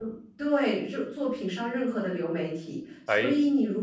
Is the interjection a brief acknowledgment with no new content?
Yes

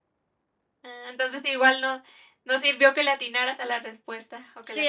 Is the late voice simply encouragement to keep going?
No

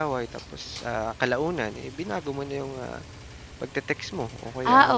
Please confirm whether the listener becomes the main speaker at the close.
Yes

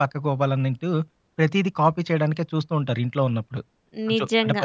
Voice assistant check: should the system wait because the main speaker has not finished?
No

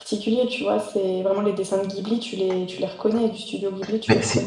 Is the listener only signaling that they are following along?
No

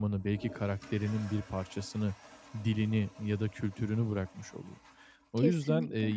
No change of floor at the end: Yes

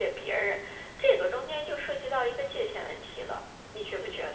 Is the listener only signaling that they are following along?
No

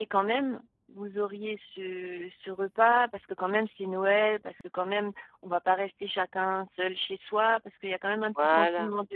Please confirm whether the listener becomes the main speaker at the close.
No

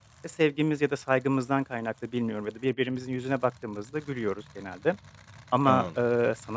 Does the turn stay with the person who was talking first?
Yes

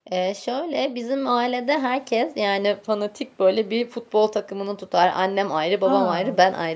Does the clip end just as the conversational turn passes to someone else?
No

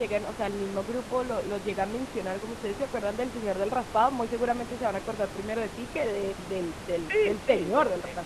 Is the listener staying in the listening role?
No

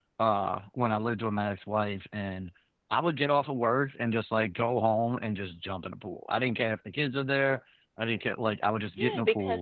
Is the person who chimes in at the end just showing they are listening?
No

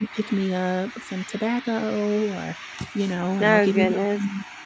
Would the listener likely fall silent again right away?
Yes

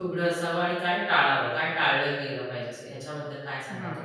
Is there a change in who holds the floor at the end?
Yes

